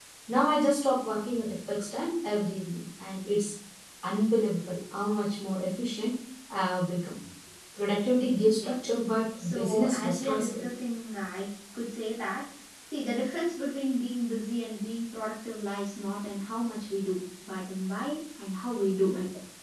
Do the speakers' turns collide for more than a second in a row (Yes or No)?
Yes